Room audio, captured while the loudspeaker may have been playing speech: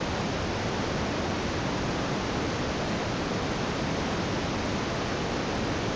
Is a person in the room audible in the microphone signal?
No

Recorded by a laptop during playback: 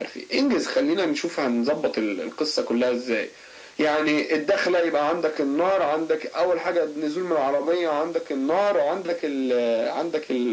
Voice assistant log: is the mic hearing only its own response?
Yes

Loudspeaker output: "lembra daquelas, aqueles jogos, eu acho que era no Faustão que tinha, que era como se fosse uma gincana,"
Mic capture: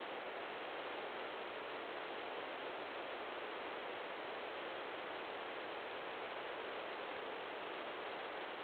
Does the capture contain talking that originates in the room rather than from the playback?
No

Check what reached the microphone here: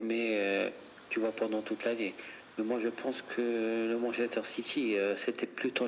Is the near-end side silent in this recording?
Yes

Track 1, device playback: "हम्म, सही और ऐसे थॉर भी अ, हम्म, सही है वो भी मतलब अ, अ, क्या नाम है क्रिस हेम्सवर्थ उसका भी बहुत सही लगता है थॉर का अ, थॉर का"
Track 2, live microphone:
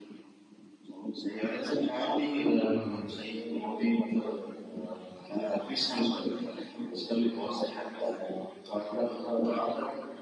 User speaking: Yes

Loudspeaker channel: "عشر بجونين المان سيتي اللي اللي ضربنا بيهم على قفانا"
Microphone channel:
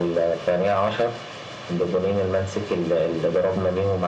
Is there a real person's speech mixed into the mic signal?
No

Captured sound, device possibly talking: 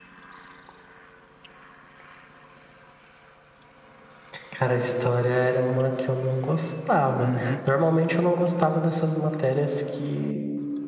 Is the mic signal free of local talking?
No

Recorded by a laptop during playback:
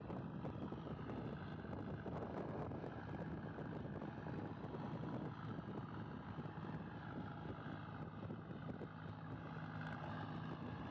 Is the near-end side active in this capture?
No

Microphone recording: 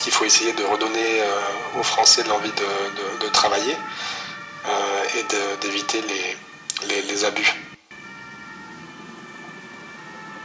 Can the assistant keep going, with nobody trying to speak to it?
Yes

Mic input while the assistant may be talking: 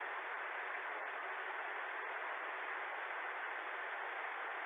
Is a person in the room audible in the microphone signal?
No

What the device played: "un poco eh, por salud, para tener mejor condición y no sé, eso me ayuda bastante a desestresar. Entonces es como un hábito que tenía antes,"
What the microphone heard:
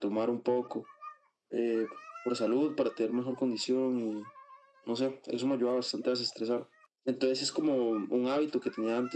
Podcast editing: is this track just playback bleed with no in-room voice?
Yes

